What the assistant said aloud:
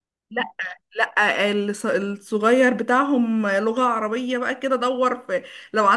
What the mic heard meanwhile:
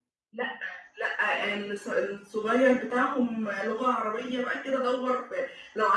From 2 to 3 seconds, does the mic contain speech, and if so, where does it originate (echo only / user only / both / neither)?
echo only